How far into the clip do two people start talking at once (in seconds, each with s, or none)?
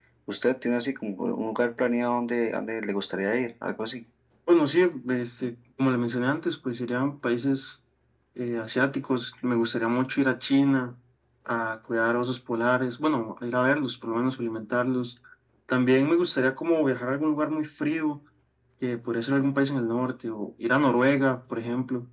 none